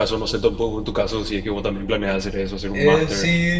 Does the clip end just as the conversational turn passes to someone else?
Yes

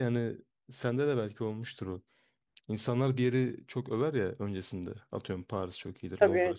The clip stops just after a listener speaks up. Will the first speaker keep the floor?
Yes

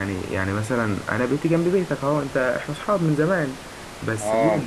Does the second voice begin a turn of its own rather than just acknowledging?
No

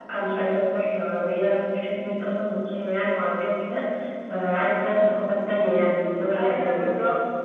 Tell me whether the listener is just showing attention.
No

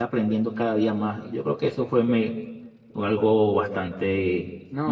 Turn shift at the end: Yes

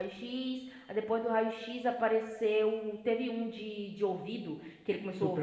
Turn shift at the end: No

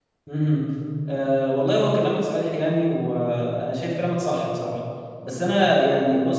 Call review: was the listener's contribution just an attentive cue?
Yes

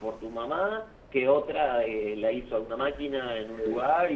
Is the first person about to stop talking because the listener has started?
No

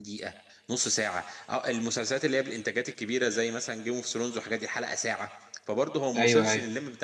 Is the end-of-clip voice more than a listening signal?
No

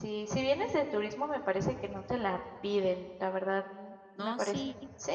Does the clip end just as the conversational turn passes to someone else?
Yes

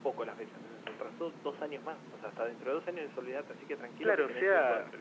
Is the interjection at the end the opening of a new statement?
Yes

